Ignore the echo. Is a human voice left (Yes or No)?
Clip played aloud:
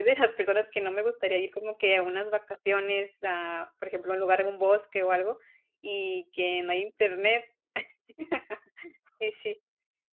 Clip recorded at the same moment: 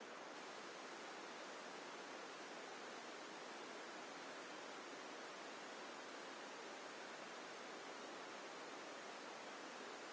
No